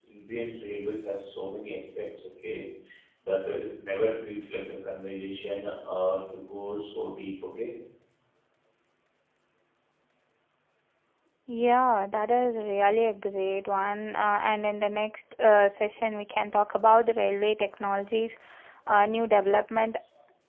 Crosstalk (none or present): none